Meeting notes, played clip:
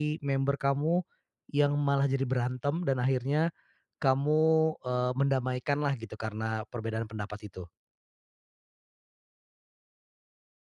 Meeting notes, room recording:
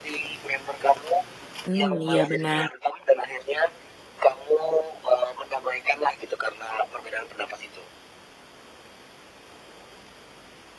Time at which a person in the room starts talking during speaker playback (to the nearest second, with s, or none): 2 s